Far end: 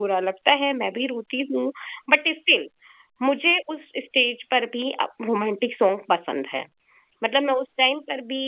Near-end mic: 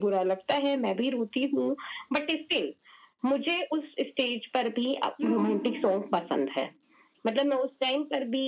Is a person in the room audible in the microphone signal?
Yes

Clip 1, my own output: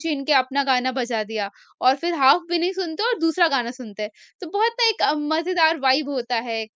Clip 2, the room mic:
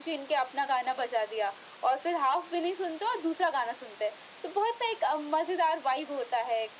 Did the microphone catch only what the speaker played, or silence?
Yes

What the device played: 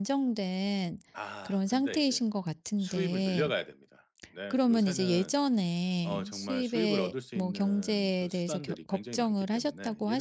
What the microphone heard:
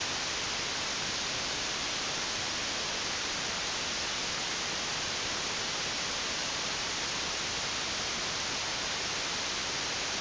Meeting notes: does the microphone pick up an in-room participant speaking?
No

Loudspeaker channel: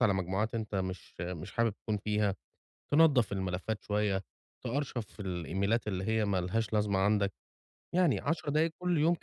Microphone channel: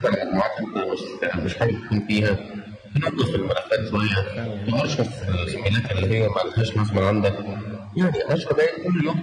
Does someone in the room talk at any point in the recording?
Yes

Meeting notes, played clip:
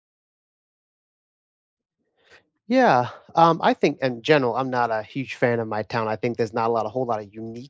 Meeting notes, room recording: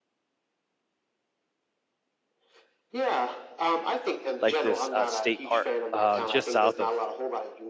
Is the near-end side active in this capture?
Yes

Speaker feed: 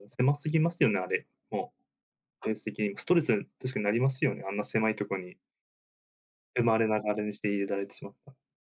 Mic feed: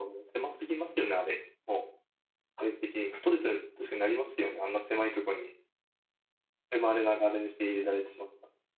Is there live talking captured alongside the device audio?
No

